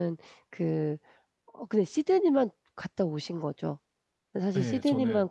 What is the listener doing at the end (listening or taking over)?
listening